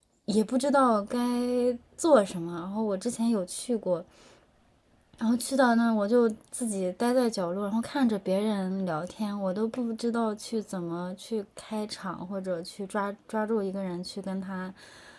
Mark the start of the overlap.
none

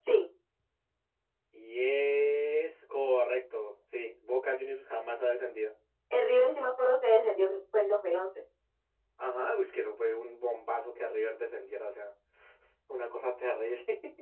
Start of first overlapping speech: none

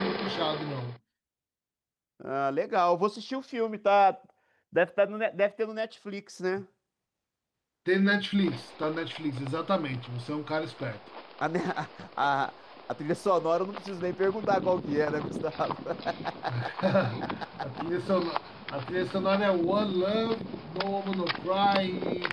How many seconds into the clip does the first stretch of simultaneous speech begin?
none

